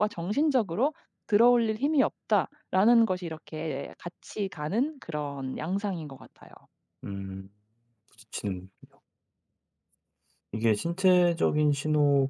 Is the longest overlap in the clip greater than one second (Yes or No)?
No